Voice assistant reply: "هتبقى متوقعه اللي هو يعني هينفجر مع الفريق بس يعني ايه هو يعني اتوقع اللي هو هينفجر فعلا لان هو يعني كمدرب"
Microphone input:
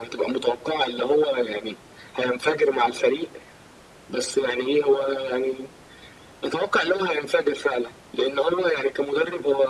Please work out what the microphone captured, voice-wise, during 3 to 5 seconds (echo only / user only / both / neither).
echo only